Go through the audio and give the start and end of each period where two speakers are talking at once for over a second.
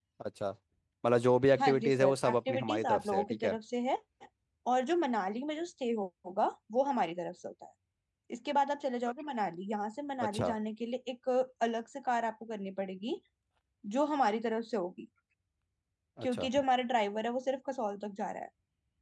1.6-3.6

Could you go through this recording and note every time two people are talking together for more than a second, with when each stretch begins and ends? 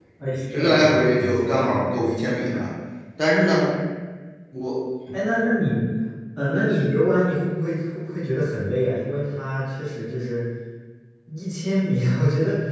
0.5-2.7

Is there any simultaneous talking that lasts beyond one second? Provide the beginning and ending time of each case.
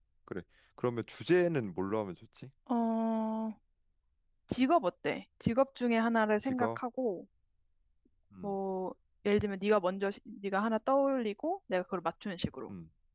none

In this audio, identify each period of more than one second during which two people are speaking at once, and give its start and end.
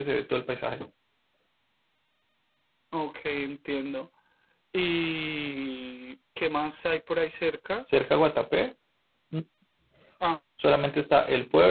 none

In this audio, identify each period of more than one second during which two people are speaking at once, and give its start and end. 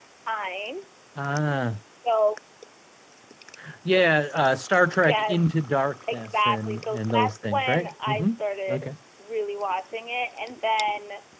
6.1-8.3

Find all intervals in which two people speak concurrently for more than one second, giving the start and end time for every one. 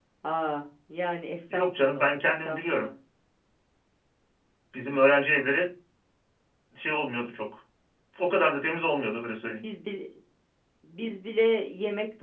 1.5-2.9

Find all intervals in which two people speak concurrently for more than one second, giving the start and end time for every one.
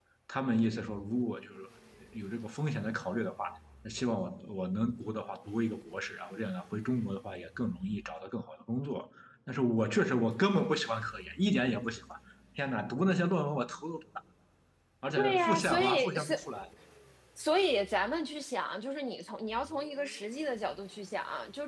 15.2-16.4

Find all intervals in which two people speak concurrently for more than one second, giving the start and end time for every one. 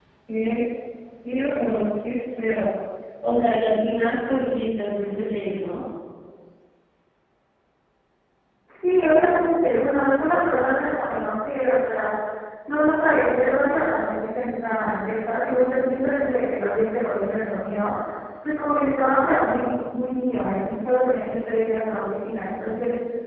none

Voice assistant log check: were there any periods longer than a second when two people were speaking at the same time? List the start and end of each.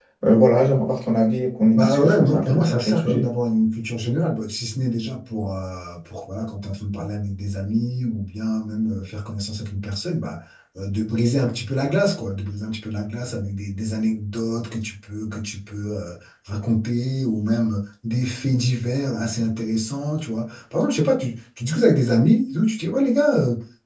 1.7-3.3

